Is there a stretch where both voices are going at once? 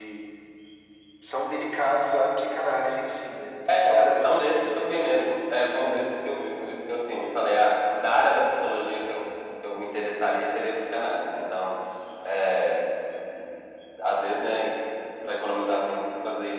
Yes, from 3.6 s

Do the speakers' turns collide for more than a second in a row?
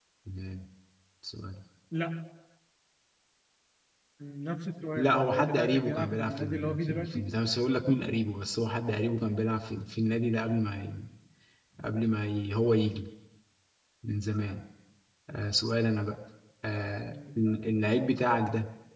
Yes, from 5.0 s

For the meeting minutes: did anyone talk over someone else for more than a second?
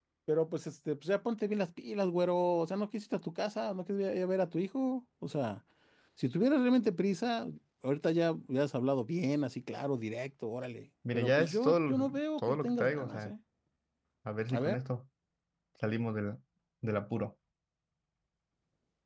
Yes, from 11.1 s

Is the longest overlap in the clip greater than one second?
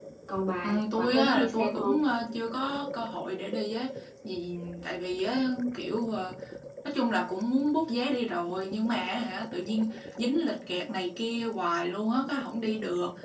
Yes, from 0.6 s

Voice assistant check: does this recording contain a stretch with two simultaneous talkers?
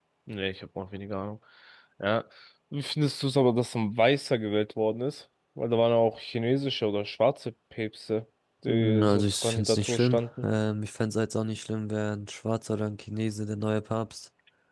Yes, from 8.7 s

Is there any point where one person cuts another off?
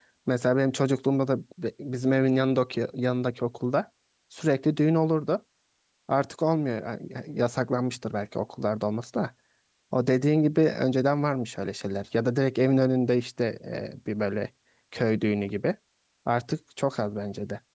No

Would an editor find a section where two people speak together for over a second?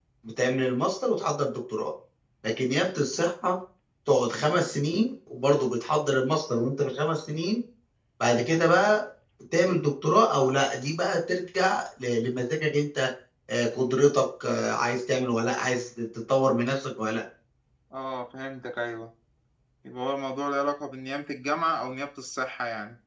No

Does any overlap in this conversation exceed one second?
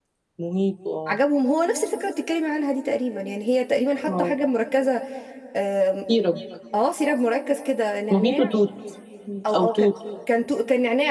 No

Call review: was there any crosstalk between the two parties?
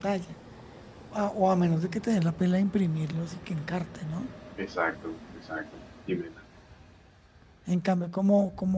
No

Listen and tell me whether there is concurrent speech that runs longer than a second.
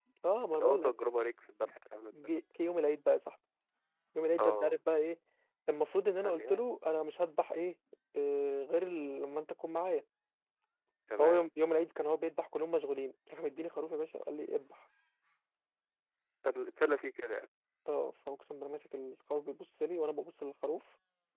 No

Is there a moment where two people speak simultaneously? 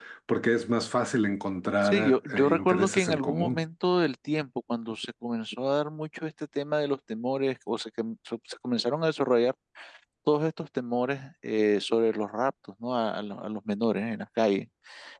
Yes, from 1.8 s

